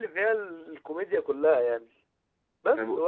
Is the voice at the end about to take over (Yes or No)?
No